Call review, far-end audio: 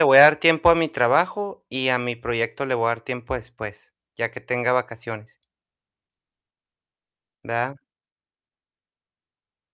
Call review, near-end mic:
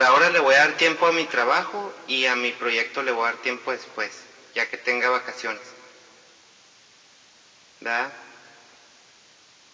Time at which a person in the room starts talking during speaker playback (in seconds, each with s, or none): none